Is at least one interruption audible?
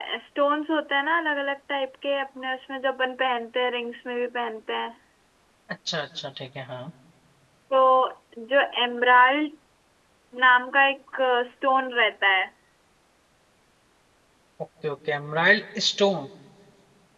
No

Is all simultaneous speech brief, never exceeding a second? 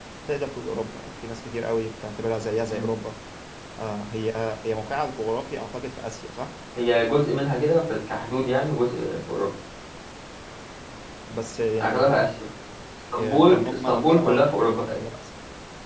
No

